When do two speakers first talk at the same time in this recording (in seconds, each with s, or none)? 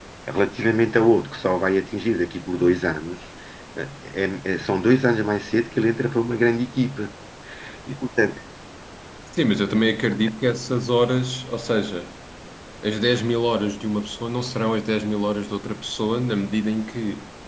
none